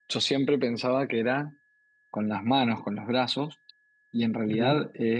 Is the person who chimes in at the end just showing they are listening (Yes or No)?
Yes